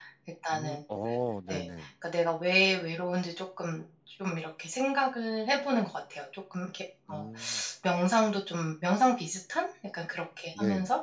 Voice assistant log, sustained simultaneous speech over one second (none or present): none